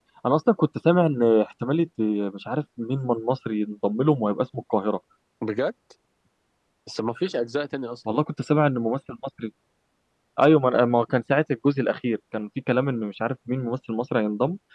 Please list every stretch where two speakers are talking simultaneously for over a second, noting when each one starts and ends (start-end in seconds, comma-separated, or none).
none